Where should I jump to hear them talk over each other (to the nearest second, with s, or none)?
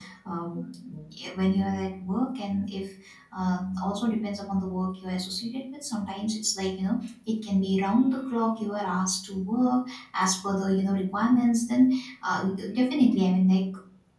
none